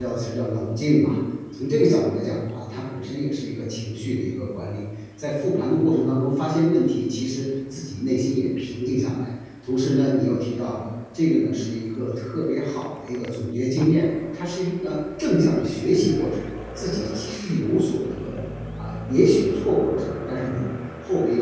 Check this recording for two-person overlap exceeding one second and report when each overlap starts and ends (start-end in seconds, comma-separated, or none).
none